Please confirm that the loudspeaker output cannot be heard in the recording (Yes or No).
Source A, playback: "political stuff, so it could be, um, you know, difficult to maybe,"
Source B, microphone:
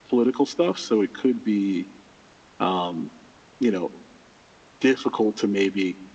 No